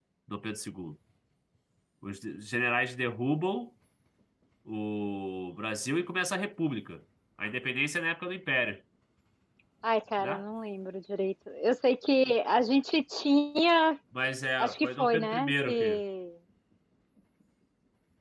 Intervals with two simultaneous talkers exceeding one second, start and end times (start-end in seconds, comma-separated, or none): 14.6-16.0